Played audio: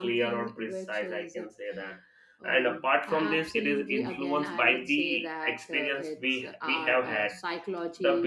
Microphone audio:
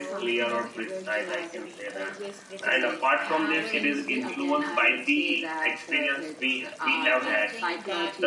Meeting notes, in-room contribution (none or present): present